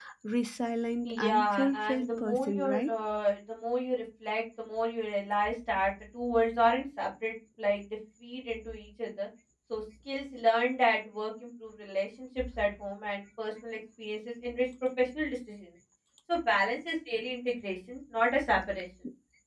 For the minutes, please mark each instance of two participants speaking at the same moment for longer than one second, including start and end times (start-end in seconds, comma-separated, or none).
1.1-2.9